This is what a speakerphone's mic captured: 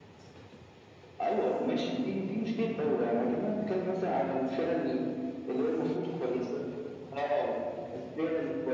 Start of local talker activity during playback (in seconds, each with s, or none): none